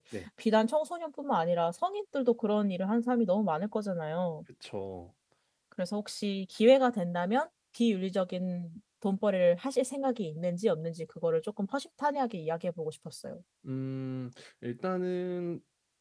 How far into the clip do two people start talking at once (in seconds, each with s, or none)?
none